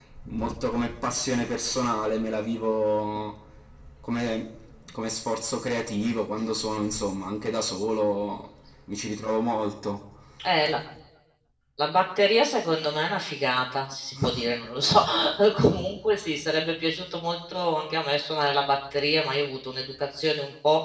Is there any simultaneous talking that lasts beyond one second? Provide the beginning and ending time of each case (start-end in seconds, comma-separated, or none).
none